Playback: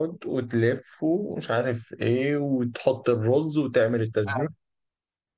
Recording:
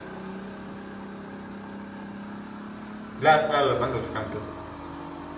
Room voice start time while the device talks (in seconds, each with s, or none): 3.2 s